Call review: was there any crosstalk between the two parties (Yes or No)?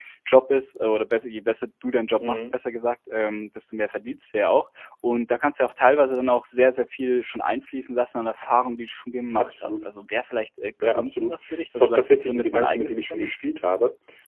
Yes